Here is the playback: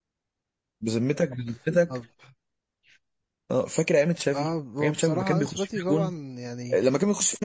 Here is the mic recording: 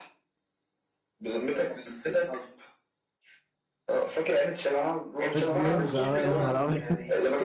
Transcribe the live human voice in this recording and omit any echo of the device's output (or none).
لوكا ديونج اه يا نهار ابيض